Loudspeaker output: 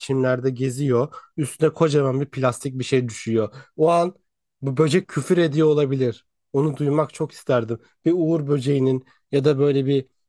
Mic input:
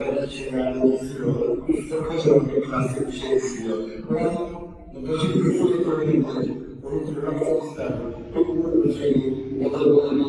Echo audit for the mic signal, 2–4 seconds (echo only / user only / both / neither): echo only